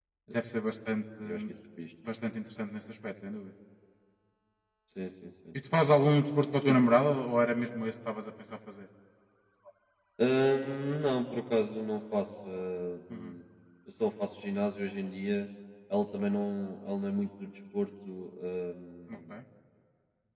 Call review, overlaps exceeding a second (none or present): none